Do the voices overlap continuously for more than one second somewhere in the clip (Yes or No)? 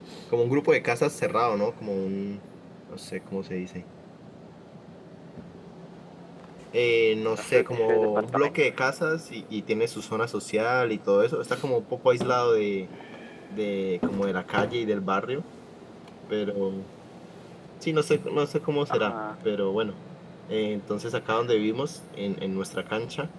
Yes